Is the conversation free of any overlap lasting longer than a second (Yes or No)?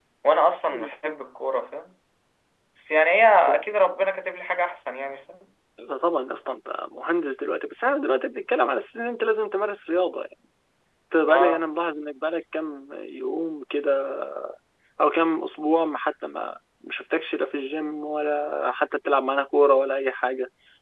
Yes